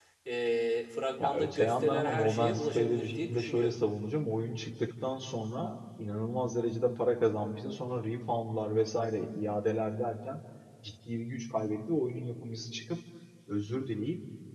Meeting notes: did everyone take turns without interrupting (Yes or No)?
No